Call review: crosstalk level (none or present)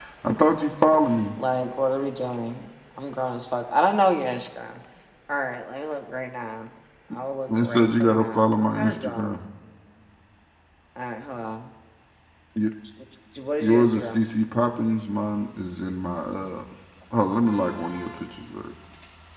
present